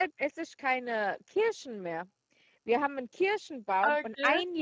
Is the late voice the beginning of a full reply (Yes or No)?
No